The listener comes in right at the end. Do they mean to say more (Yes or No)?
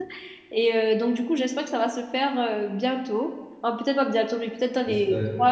No